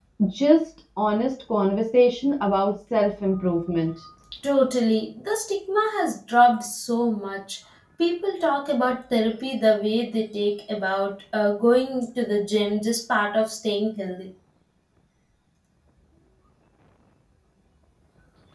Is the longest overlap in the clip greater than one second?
No

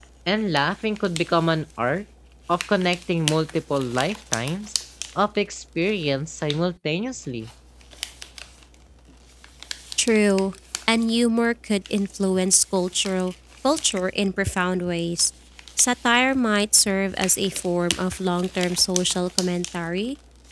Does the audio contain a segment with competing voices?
No

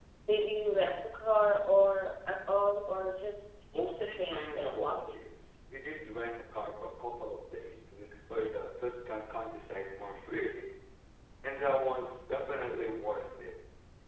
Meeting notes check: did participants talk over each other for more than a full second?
Yes, from 3.7 s

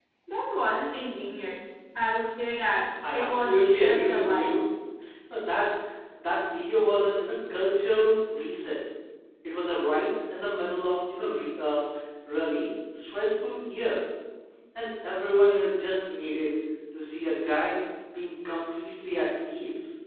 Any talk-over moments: Yes, from 3.0 s

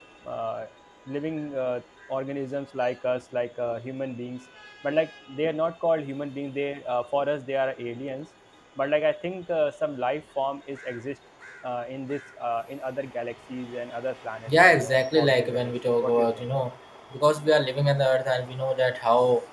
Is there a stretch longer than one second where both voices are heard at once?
Yes, from 14.5 s

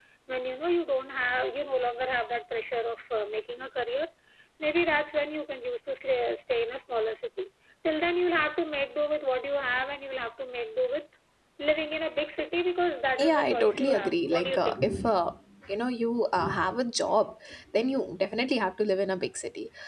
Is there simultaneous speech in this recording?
Yes, from 13.2 s

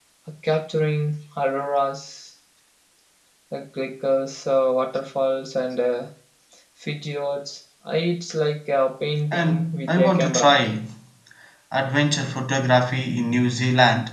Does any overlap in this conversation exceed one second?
Yes, from 9.3 s

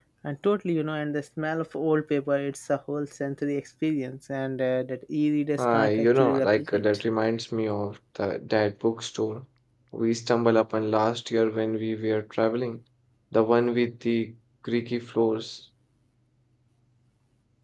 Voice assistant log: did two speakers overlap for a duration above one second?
Yes, from 5.6 s

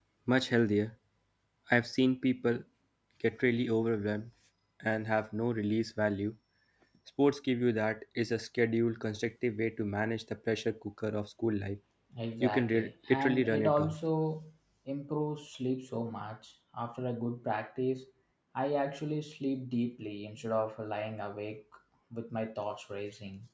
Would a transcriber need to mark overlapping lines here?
Yes, from 12.4 s

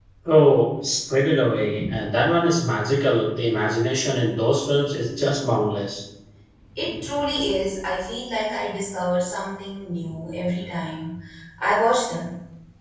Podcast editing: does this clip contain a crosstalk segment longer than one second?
No

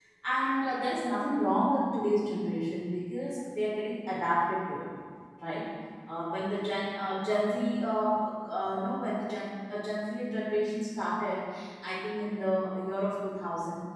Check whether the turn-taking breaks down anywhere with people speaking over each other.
No

